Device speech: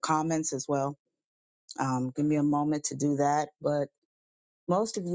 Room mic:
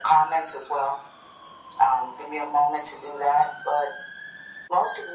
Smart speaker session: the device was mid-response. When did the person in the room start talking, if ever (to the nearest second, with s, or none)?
none